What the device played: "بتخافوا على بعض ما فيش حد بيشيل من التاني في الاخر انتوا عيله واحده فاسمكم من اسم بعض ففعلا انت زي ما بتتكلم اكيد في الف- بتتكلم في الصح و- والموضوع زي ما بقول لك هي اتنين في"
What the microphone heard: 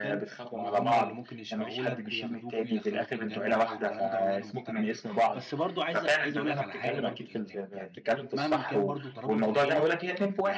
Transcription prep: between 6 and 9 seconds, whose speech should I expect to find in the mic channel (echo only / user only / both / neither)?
both